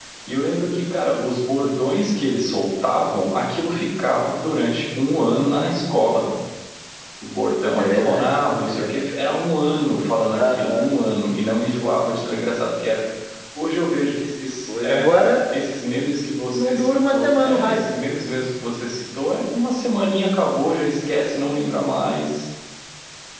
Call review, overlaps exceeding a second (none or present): present